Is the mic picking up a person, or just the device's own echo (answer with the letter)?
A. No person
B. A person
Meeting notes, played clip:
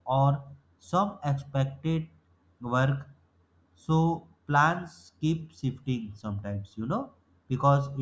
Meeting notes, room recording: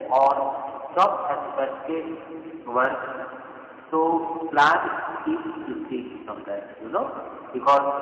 A